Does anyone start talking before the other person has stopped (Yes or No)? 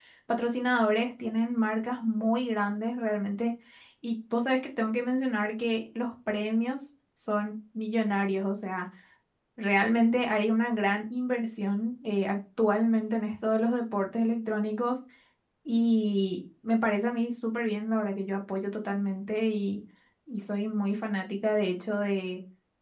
No